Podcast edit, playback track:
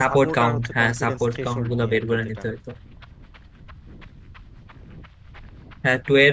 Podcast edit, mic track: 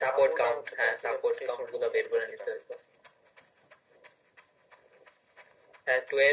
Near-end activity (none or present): none